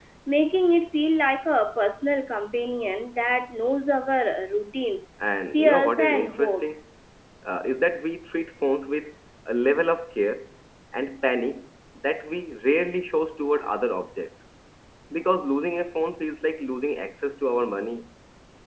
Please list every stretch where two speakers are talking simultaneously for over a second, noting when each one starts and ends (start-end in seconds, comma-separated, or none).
5.5-6.8